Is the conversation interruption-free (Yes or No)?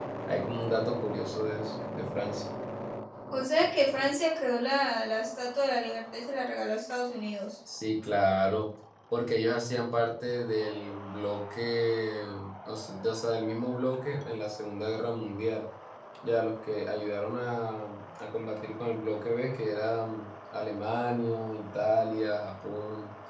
Yes